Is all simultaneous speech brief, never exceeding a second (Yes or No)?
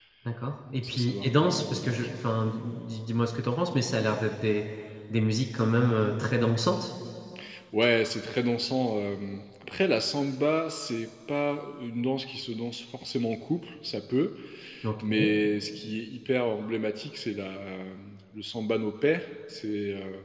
No